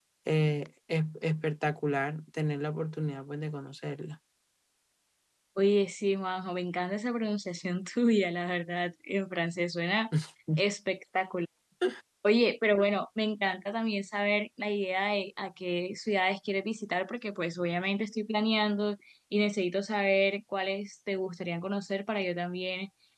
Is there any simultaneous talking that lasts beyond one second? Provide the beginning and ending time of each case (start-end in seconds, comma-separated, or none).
none